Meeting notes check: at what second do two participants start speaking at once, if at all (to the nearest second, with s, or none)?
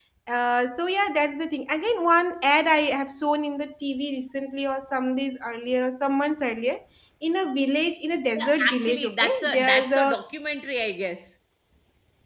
8 s